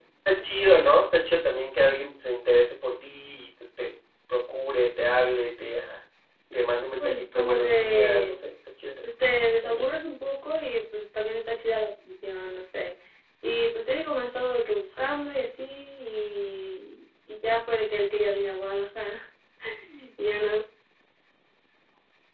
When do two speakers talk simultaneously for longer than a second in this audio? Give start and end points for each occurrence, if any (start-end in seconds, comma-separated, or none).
7.0-8.4